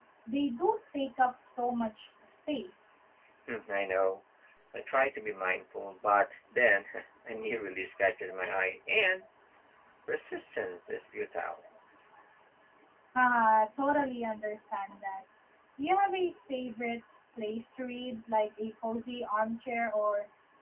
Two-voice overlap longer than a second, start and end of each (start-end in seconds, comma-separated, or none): none